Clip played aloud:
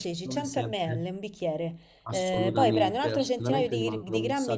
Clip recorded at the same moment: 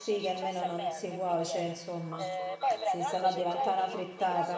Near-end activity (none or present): present